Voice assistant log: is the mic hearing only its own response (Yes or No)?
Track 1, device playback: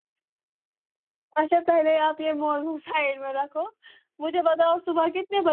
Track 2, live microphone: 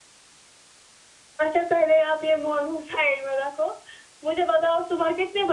Yes